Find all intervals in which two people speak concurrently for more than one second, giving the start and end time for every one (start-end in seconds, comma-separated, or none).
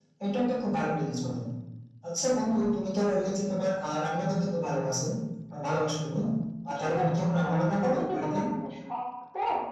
6.7-8.4